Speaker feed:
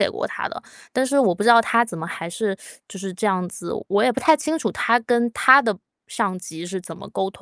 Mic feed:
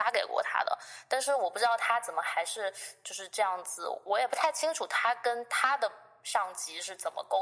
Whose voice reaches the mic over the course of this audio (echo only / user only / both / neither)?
echo only